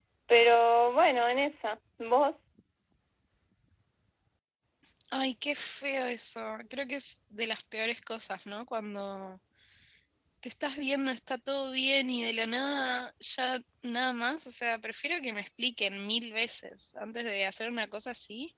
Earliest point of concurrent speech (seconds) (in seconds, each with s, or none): none